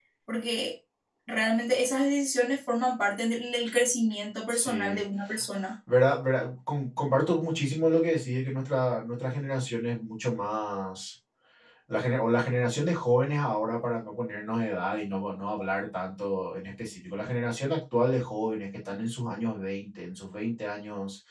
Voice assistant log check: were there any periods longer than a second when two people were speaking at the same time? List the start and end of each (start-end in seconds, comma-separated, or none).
none